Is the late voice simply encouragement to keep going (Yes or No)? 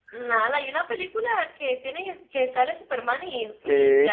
No